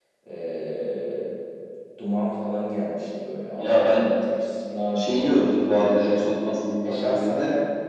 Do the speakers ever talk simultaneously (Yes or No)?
Yes